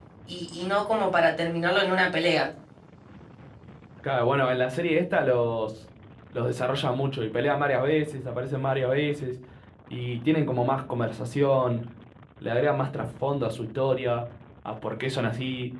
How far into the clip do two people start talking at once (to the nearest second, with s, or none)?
none